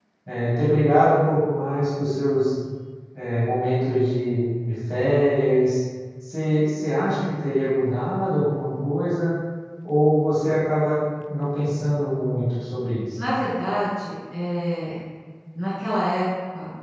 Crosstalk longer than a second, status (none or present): none